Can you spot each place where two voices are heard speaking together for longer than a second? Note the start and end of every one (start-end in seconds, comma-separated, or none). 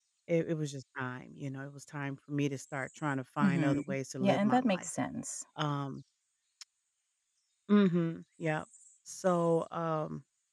3.4-4.9